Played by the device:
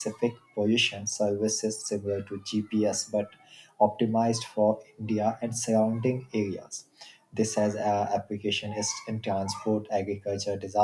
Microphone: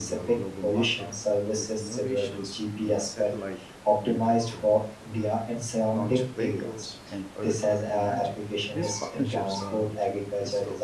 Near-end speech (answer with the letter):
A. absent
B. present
B